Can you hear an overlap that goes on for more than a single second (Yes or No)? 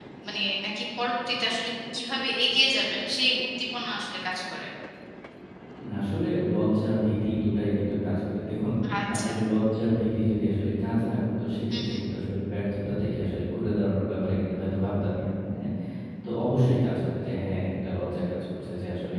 No